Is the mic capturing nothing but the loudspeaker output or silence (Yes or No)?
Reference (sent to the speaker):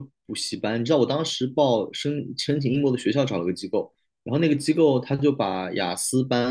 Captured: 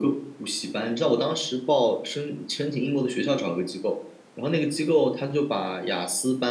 Yes